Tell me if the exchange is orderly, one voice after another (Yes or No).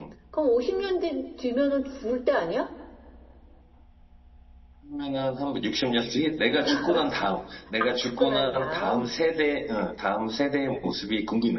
No